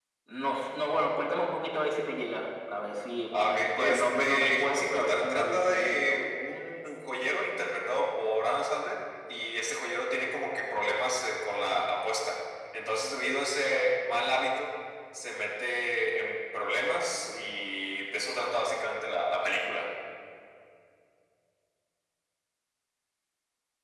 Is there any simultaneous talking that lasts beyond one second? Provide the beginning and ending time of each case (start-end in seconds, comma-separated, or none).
3.3-6.2